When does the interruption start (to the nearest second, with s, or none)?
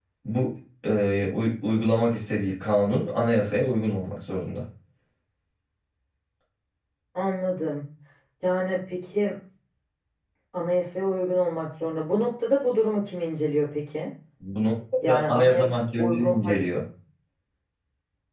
15 s